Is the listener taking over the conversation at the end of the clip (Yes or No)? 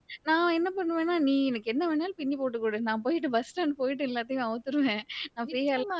Yes